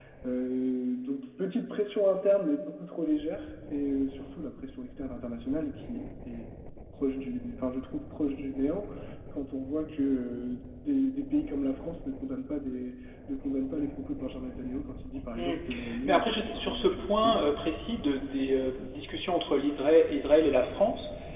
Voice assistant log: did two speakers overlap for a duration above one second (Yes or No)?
Yes